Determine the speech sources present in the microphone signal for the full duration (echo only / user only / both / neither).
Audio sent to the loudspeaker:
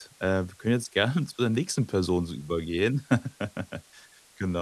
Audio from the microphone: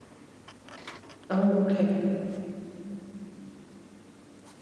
user only